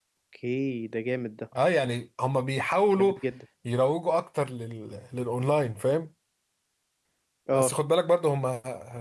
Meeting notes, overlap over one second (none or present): none